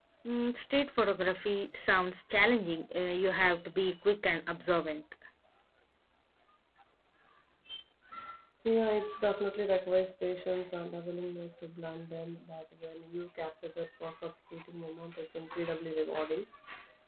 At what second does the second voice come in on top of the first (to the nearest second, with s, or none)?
none